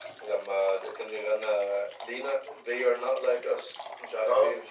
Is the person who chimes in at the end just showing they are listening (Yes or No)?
No